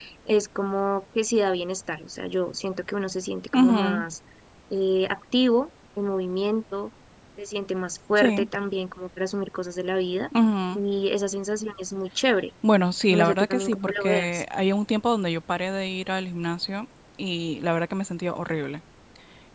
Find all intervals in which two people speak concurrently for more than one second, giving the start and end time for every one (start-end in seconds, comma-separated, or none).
13.1-14.4